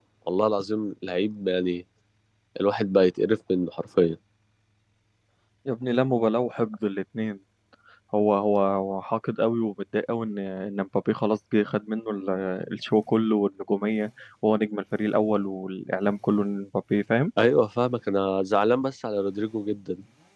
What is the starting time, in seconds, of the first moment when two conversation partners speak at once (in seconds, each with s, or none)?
none